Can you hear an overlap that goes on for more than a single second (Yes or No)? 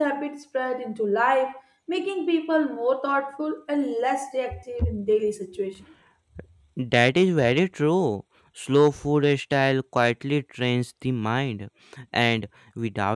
No